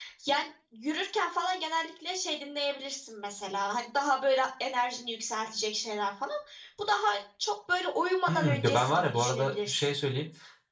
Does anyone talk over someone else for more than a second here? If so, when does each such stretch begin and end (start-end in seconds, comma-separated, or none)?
8.3-9.9